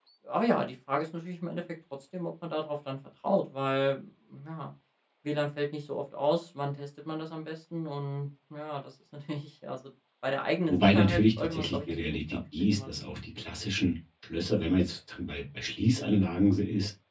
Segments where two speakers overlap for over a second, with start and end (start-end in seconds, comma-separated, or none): 10.7-13.0